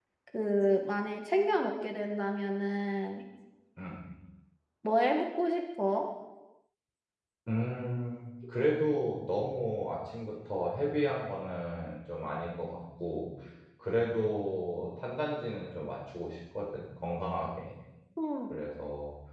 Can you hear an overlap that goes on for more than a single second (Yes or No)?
No